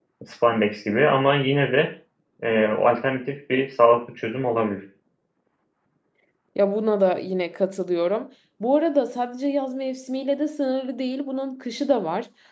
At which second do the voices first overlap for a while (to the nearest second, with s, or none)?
none